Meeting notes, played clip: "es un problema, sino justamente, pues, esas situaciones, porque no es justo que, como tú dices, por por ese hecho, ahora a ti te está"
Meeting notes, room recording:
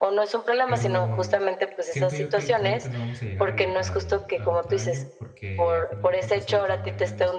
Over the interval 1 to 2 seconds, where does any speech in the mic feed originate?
both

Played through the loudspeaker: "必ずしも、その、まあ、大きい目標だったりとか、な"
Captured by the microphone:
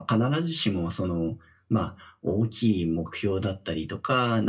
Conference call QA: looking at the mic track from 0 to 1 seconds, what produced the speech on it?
echo only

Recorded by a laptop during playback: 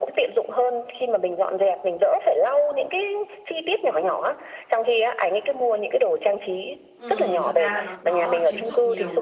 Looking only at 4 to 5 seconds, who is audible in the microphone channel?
echo only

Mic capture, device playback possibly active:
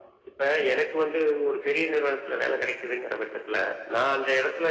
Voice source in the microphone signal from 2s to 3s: echo only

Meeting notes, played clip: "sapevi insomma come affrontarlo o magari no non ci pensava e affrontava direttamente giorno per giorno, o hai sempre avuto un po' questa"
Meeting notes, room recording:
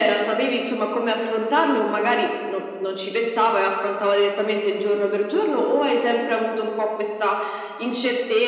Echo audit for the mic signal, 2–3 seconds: echo only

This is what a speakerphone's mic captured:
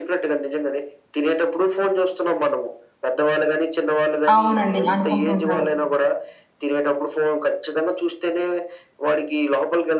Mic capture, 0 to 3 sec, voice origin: echo only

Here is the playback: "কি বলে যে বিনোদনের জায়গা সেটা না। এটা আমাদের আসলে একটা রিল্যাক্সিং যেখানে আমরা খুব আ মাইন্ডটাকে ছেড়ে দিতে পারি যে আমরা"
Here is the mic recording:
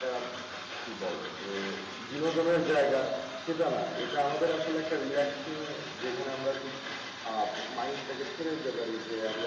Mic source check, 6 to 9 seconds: echo only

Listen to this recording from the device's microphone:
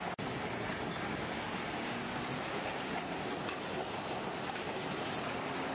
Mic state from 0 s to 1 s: neither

